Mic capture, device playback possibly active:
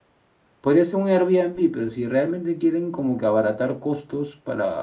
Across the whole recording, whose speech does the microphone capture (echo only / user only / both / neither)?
user only